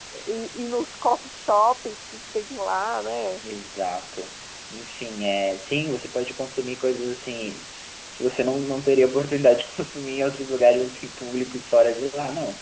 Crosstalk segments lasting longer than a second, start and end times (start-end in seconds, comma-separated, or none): none